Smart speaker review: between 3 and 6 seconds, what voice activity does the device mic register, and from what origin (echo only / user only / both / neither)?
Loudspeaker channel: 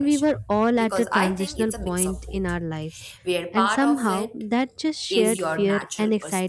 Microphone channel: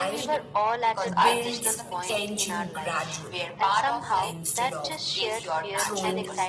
both